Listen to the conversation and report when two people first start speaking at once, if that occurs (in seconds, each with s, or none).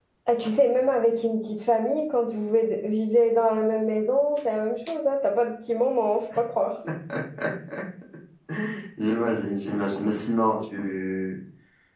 none